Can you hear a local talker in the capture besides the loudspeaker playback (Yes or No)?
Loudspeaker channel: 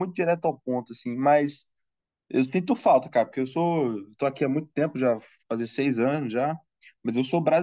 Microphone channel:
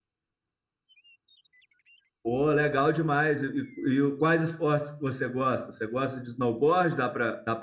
Yes